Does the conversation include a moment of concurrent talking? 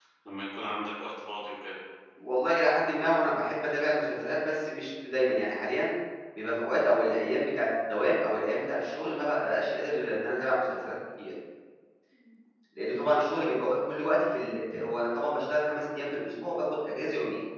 No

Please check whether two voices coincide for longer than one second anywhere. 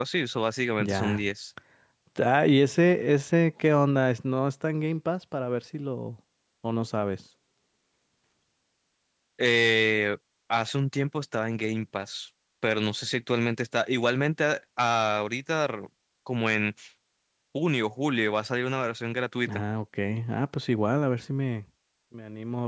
No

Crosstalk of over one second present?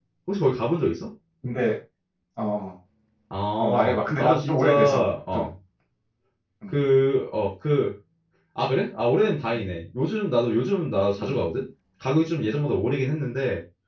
Yes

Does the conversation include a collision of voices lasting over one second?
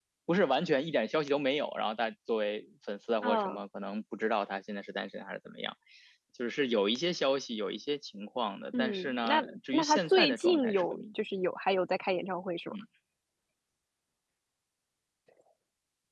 Yes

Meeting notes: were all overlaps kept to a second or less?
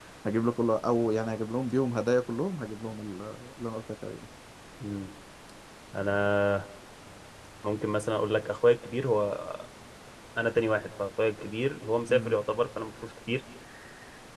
Yes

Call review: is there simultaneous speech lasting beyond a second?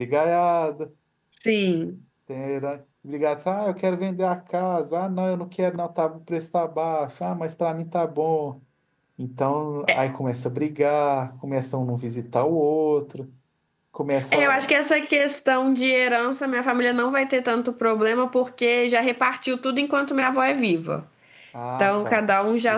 No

